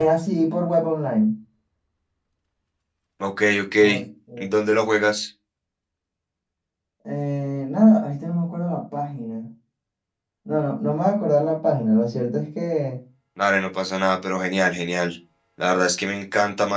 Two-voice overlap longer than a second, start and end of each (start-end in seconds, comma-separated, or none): none